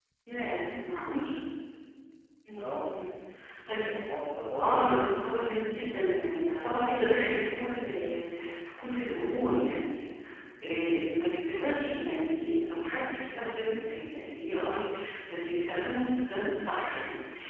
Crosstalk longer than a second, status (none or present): none